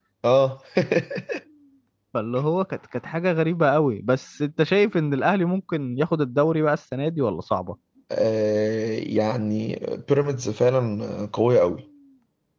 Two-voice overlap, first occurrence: none

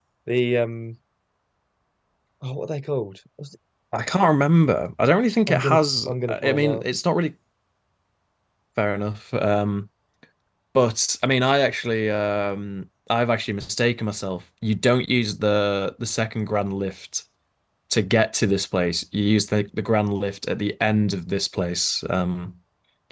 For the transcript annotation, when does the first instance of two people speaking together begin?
5.5 s

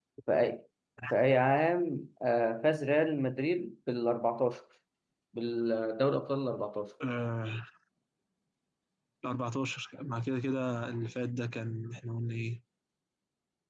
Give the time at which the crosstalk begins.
none

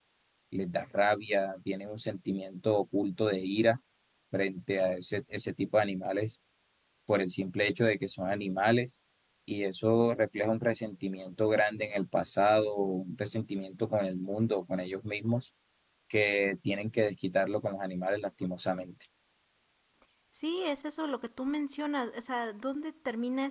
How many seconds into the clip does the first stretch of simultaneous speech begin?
none

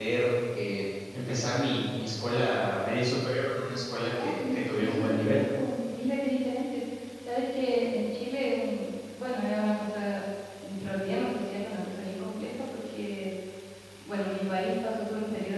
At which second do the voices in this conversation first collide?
4.2 s

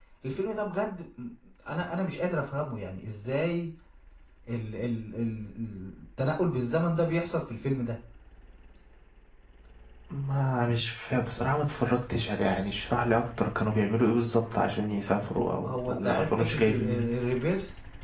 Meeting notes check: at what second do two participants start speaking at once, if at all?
15.3 s

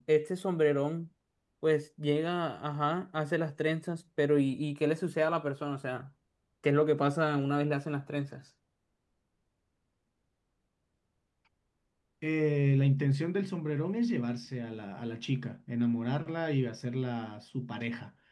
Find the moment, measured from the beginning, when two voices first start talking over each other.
none

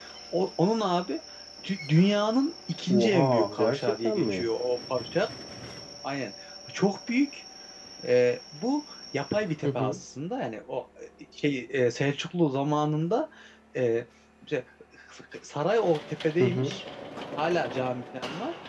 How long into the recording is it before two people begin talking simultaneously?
2.9 s

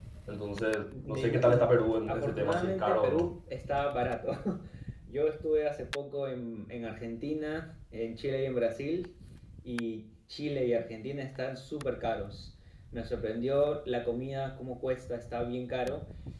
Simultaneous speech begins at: 1.1 s

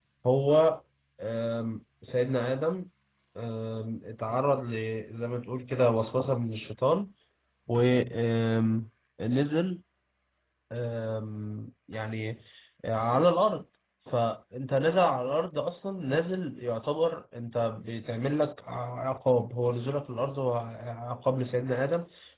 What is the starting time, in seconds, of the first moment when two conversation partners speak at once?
none

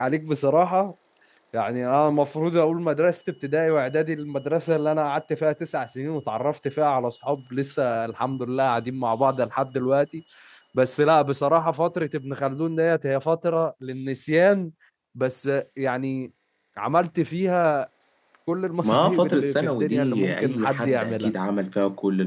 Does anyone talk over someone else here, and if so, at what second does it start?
18.8 s

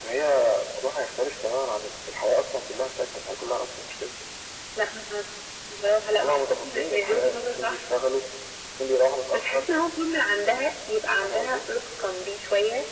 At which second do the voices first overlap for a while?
6.2 s

